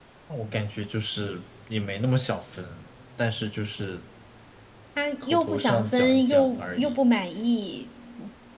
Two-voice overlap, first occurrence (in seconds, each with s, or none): 5.2 s